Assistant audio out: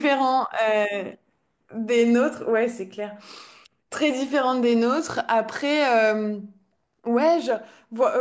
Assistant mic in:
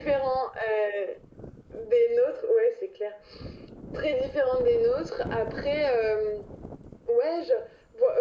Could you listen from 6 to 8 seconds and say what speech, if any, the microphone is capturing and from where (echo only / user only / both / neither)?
echo only